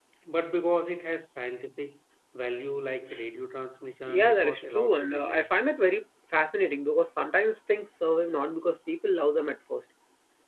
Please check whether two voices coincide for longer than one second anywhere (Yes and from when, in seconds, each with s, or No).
Yes, from 4.1 s